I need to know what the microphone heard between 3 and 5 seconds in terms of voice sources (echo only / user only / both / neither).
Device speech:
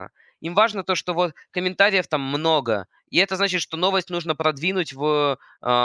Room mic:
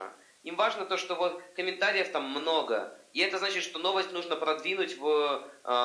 echo only